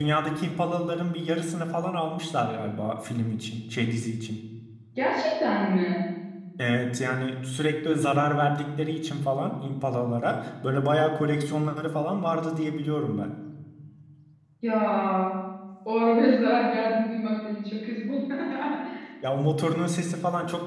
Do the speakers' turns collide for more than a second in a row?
No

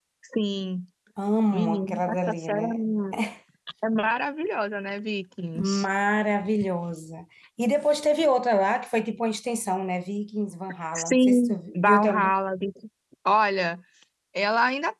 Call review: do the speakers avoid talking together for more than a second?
No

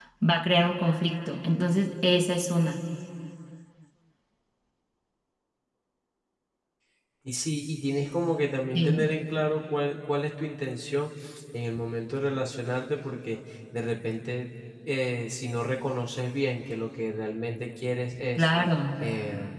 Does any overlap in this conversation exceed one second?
No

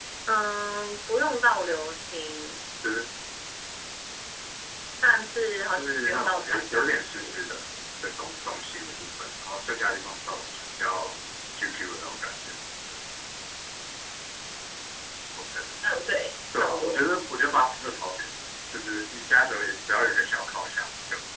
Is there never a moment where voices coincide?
No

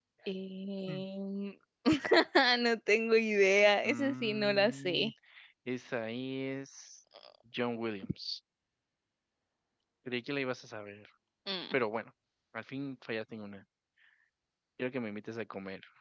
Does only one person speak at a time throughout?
No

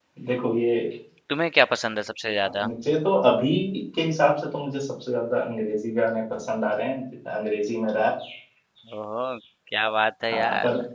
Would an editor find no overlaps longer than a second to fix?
Yes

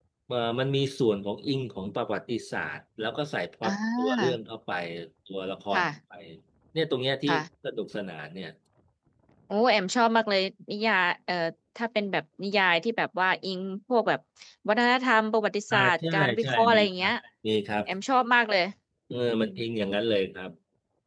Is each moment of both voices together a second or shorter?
No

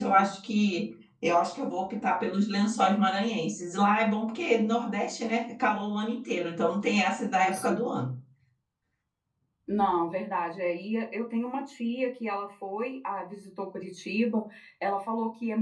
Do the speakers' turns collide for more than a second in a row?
No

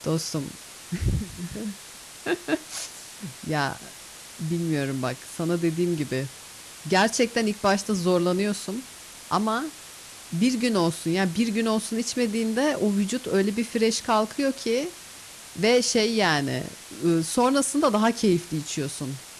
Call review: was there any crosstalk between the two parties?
No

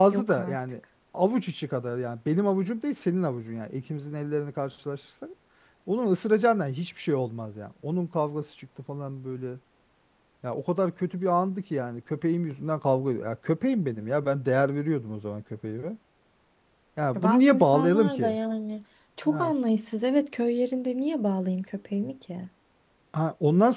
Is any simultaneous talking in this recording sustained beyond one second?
Yes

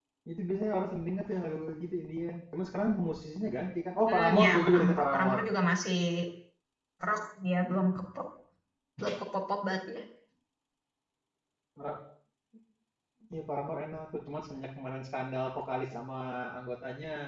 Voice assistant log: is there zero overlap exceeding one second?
No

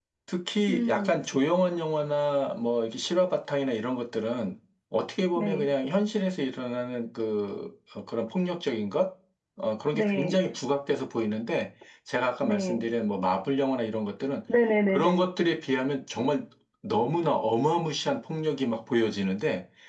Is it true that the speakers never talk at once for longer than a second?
Yes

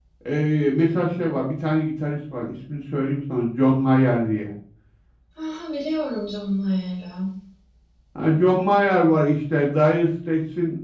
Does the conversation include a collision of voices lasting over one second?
No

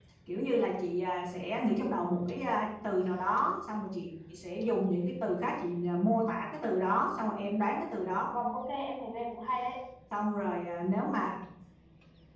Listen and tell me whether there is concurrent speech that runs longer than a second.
No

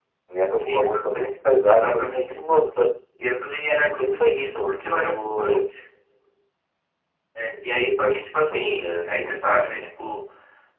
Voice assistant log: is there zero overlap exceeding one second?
No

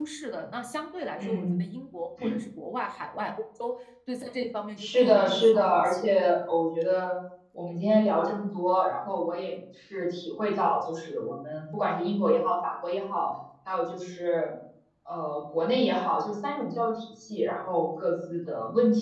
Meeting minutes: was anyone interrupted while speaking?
Yes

